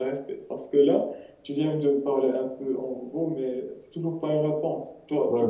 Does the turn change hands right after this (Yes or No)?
Yes